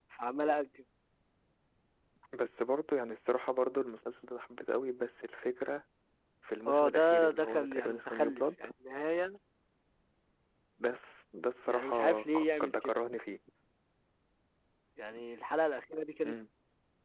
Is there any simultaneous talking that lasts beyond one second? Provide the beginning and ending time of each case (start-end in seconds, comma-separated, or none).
6.7-8.5, 11.7-13.0